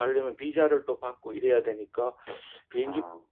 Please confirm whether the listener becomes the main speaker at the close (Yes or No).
No